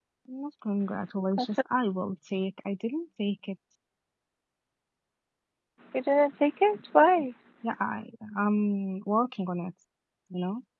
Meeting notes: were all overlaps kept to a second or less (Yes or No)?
Yes